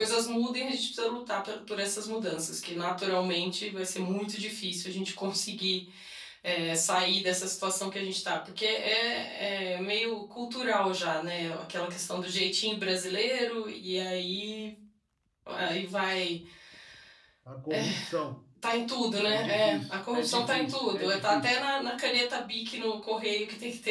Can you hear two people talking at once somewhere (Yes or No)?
Yes